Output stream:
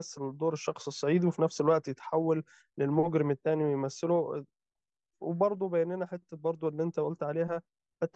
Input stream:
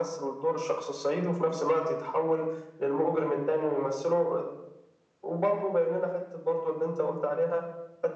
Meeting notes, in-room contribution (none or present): none